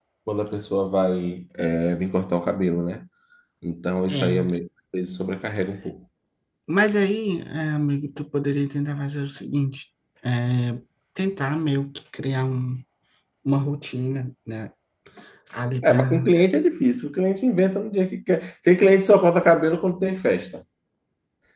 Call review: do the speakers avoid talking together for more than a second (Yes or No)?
Yes